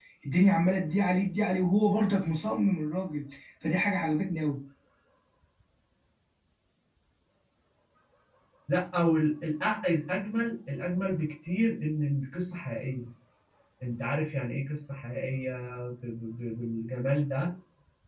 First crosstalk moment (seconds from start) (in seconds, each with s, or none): none